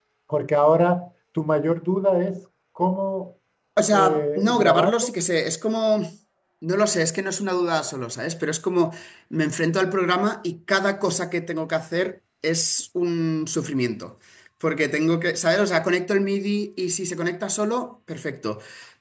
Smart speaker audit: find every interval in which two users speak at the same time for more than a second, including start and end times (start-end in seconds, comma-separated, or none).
3.9-5.2